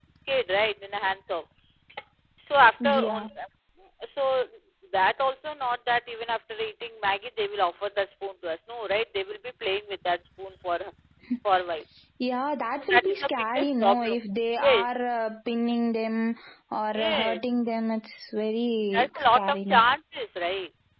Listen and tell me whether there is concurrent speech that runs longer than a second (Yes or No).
Yes